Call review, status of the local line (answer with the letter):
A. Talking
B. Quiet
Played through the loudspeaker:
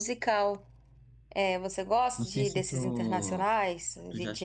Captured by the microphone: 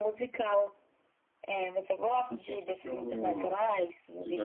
B